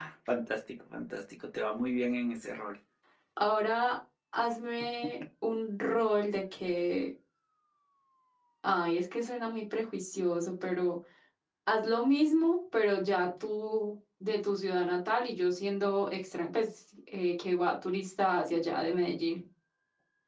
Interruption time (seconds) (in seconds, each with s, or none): none